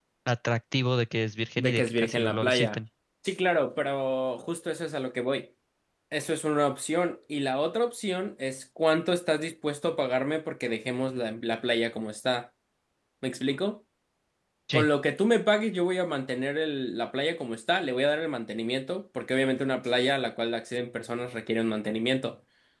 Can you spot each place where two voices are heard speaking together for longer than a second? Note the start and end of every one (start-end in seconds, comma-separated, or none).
1.6-2.8